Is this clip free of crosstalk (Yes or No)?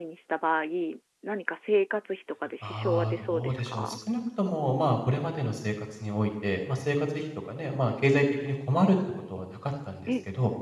No